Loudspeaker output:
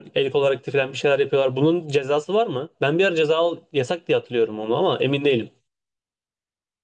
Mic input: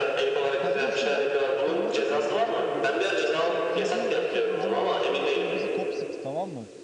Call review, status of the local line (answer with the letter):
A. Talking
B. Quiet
A